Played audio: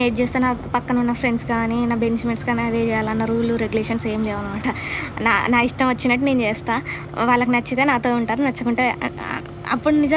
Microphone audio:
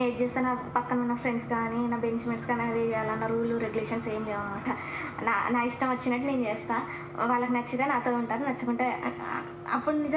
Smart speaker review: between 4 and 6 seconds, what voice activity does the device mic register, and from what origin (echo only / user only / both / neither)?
echo only